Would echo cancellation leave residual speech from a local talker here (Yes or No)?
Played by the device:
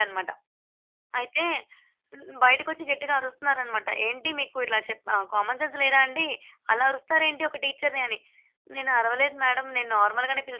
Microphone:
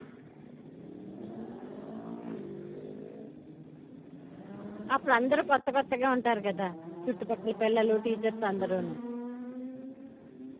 Yes